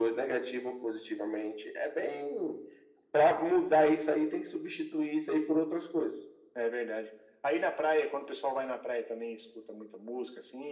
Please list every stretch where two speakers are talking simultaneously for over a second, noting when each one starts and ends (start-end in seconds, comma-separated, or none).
none